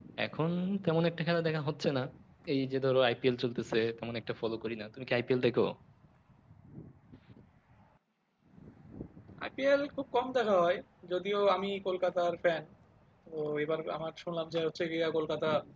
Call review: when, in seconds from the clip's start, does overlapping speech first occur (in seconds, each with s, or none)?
none